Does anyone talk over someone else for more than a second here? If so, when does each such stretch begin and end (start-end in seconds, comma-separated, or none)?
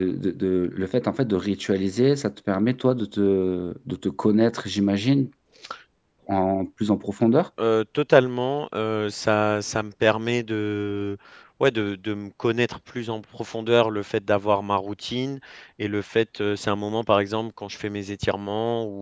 none